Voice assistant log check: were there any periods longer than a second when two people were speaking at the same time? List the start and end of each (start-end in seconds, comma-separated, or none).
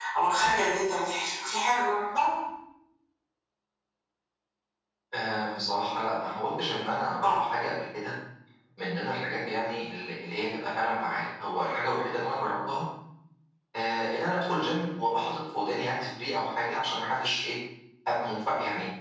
none